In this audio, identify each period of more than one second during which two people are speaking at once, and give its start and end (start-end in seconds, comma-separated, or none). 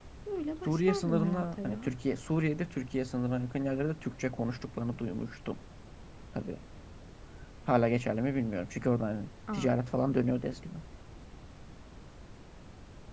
0.6-1.9